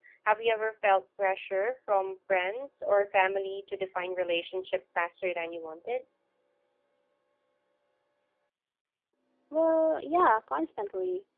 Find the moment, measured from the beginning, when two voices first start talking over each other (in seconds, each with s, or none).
none